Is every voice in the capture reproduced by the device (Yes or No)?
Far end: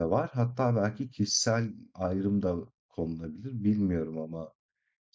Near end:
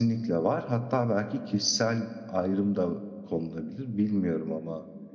Yes